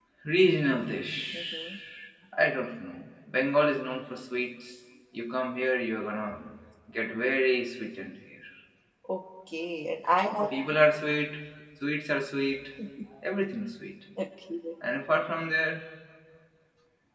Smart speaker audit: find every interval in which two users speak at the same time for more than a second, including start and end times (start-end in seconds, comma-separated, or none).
none